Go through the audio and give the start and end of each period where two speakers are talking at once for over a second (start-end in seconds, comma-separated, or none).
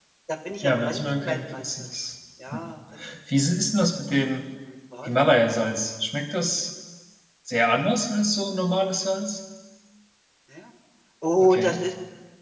0.6-1.9